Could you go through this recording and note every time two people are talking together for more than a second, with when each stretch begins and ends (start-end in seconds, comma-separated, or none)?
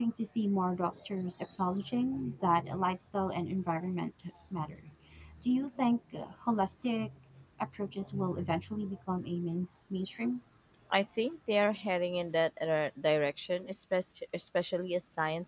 none